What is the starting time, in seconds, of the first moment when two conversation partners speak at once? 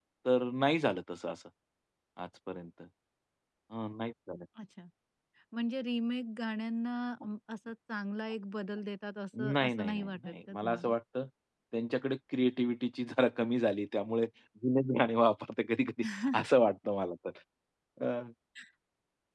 9.5 s

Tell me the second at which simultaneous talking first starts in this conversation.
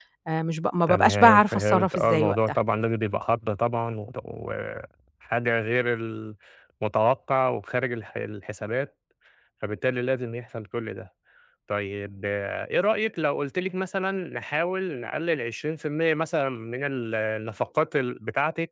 0.9 s

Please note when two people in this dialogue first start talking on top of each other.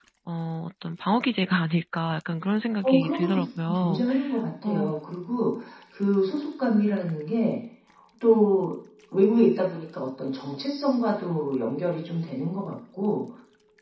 2.8 s

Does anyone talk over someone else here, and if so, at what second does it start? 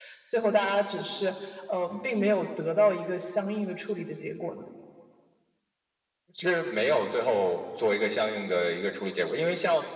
none

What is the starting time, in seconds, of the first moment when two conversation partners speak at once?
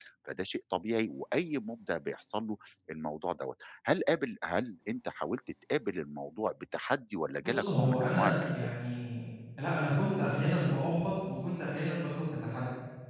7.4 s

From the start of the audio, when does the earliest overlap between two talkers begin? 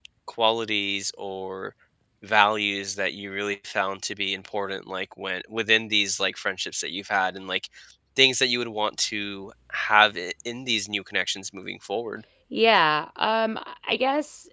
none

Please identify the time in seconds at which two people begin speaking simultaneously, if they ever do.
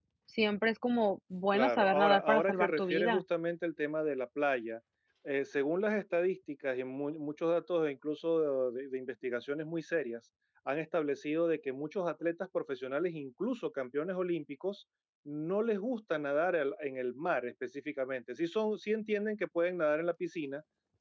1.5 s

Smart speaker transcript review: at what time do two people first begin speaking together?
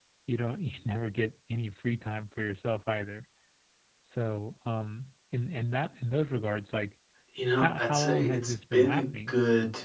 7.6 s

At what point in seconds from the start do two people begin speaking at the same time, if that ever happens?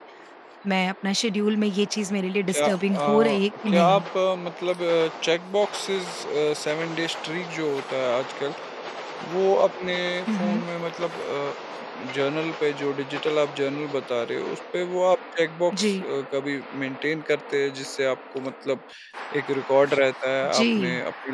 2.5 s

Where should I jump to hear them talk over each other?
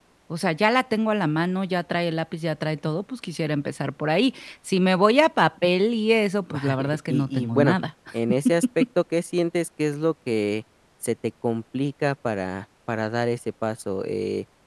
6.5 s

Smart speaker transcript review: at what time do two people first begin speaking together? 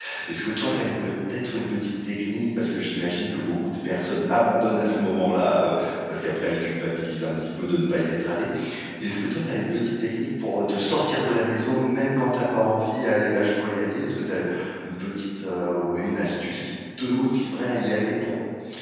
none

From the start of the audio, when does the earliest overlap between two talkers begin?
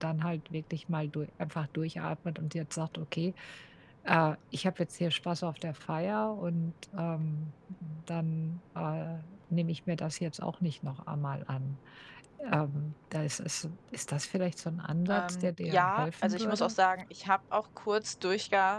15.1 s

